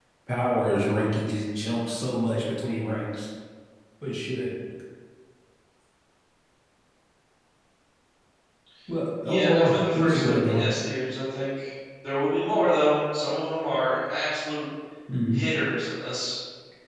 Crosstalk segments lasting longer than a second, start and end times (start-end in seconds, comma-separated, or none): 9.2-10.7